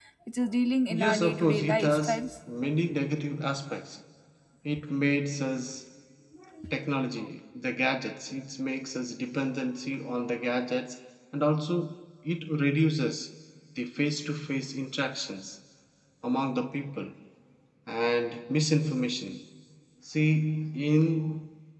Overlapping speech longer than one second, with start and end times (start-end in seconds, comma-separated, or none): 0.9-2.3